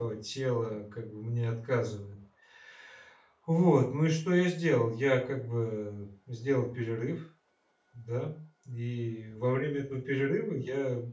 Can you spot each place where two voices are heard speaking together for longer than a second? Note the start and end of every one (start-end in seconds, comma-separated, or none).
none